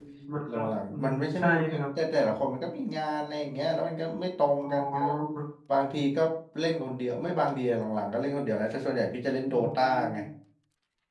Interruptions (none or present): present